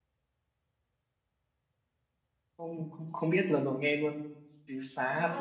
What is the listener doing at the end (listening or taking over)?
taking over